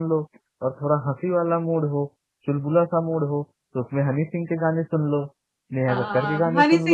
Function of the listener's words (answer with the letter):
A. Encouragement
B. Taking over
B